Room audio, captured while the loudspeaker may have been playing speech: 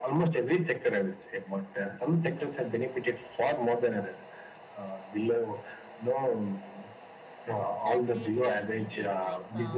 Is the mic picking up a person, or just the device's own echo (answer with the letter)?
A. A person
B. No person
A